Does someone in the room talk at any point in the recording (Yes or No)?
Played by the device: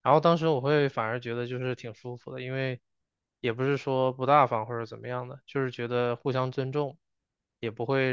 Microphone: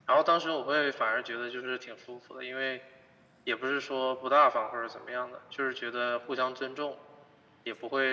No